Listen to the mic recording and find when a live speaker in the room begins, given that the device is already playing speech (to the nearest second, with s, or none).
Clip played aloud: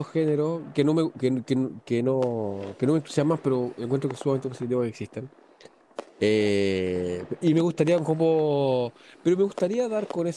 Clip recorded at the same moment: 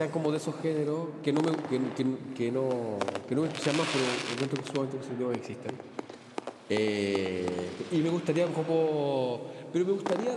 none